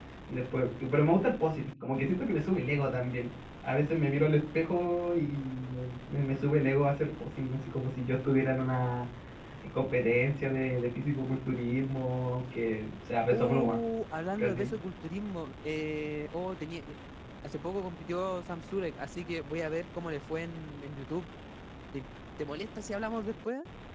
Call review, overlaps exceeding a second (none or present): none